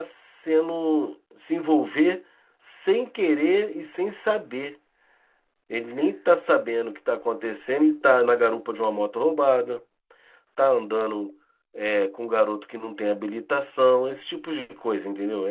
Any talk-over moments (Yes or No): No